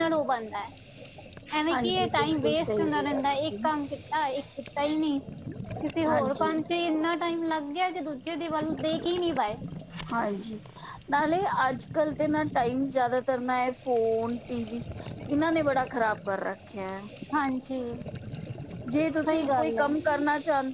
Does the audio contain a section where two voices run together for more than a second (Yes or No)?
Yes